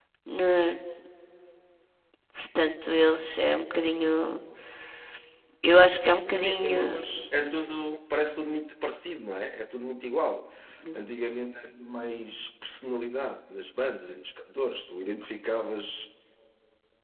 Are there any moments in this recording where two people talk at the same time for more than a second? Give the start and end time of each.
none

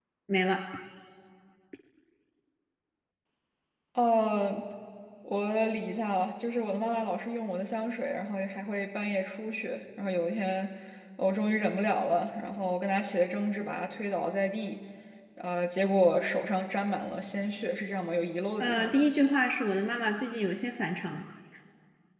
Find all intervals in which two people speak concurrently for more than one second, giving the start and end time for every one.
none

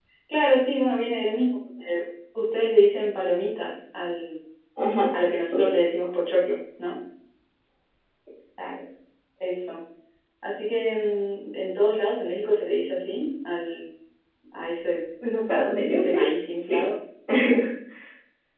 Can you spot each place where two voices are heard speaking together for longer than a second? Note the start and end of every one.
none

